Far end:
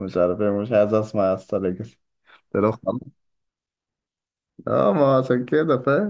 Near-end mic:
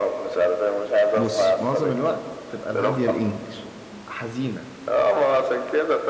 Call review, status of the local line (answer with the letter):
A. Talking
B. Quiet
A